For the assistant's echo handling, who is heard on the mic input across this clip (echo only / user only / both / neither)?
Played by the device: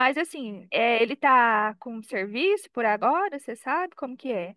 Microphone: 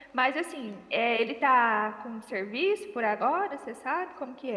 echo only